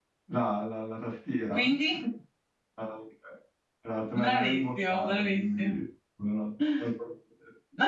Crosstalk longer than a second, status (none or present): present